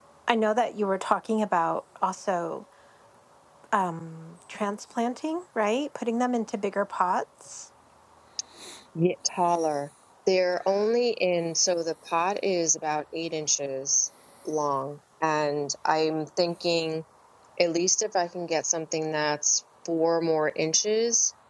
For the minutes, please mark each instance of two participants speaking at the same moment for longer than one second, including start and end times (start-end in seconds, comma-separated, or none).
none